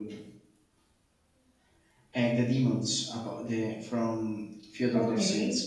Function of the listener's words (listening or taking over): taking over